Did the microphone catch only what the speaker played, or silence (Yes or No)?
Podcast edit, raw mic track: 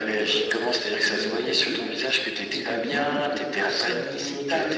Yes